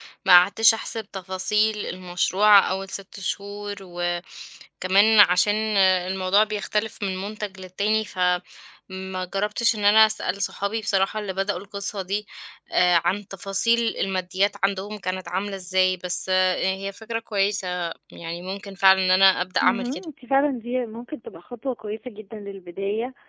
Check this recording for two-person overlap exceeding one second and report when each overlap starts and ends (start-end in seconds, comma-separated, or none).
none